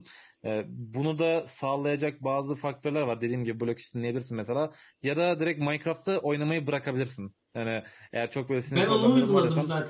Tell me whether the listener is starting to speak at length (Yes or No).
Yes